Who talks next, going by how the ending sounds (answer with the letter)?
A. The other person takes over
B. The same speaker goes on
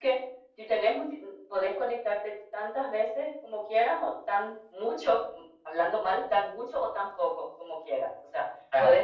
B